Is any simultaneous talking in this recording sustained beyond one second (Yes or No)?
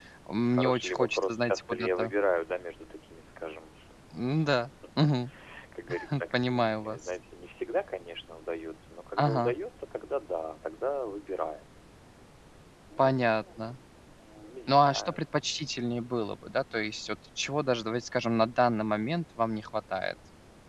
Yes